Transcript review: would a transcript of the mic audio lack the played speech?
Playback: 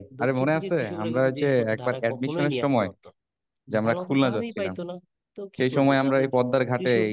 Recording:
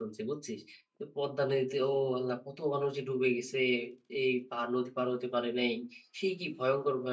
Yes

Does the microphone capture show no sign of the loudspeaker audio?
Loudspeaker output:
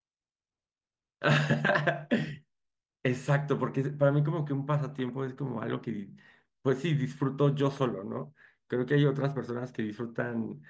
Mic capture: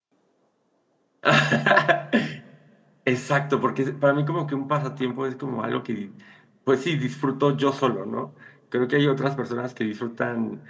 No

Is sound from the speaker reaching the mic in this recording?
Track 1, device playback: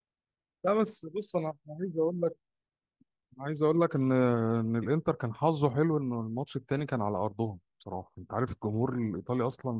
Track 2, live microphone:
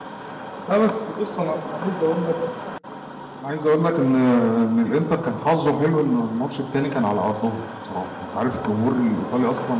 Yes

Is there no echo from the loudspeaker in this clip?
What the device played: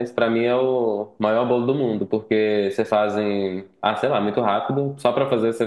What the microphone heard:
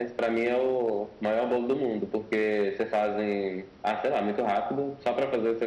No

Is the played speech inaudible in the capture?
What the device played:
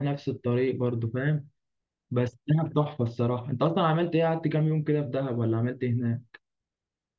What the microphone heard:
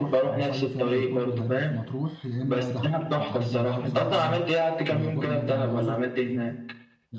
No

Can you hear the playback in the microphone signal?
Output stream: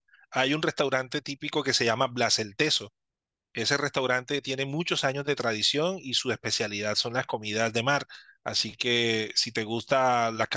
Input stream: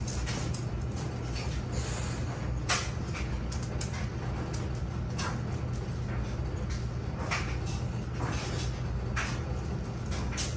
No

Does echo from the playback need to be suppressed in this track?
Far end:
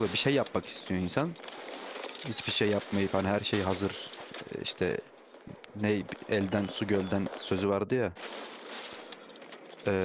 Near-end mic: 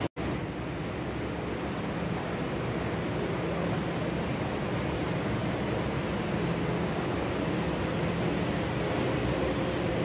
No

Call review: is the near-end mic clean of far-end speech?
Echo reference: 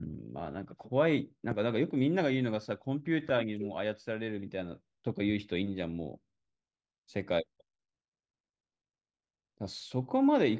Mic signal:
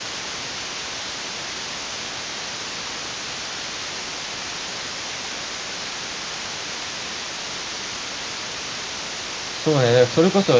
Yes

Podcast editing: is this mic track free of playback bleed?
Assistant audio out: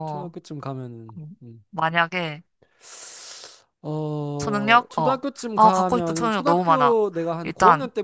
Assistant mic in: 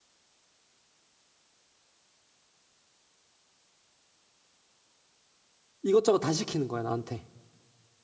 Yes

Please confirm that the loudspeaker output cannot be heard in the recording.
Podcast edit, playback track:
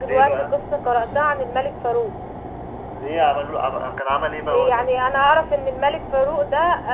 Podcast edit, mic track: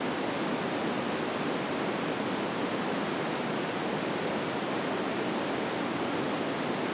Yes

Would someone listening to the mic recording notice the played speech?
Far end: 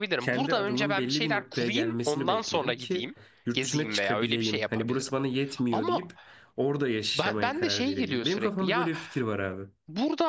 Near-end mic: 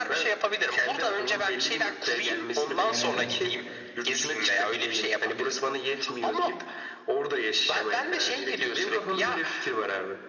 Yes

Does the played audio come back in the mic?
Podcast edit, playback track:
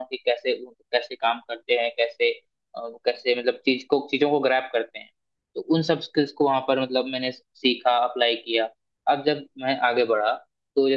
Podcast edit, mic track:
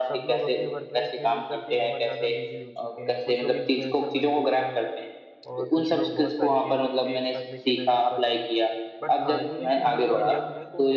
Yes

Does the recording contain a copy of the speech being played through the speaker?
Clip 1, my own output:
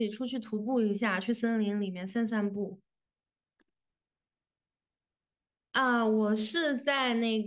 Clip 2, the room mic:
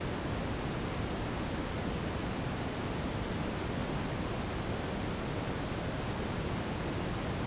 No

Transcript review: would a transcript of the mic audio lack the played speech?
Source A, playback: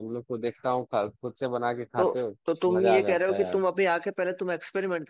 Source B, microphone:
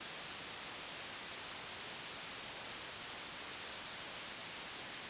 Yes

